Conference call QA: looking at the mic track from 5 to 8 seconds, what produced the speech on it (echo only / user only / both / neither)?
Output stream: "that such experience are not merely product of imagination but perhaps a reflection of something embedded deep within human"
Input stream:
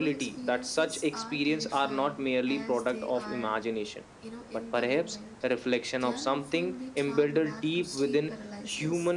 both